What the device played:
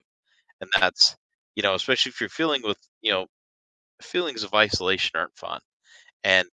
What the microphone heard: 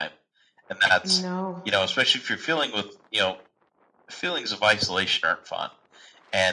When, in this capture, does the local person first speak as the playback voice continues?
1.0 s

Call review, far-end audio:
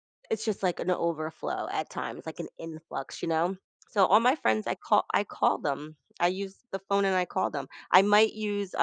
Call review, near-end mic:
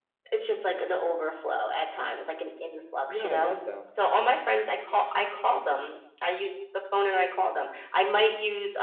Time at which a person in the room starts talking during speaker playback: 3.1 s

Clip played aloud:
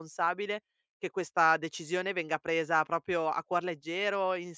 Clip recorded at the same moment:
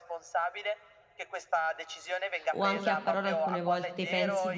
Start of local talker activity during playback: 2.5 s

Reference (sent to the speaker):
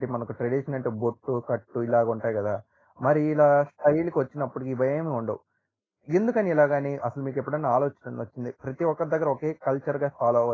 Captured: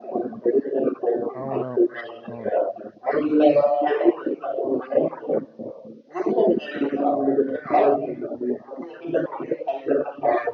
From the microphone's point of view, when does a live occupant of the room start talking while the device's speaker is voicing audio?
1.4 s

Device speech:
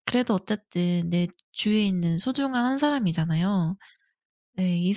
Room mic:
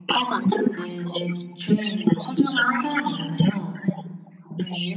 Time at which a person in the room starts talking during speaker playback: none

